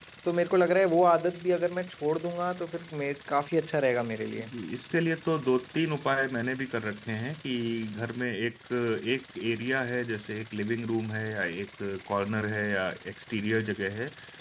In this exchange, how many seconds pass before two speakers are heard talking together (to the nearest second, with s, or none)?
none